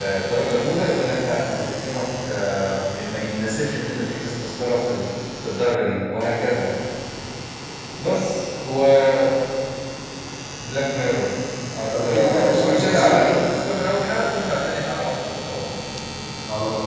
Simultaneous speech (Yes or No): Yes